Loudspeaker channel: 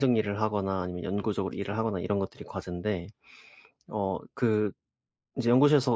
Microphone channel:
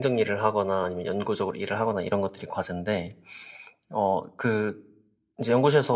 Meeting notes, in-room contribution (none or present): none